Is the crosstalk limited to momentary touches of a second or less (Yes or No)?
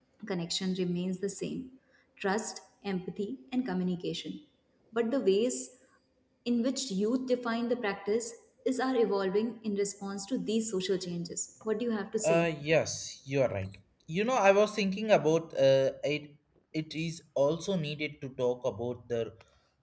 Yes